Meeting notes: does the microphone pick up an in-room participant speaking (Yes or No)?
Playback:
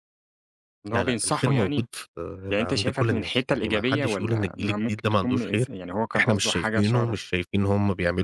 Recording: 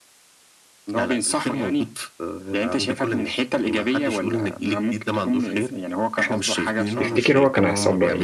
Yes